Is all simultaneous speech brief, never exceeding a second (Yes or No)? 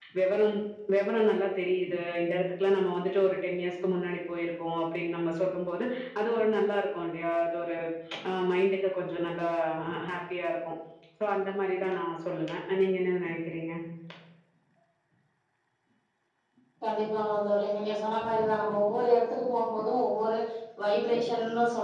Yes